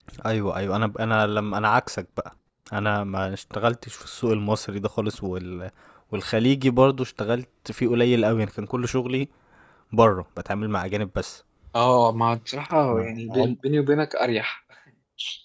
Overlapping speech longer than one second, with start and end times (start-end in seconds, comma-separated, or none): none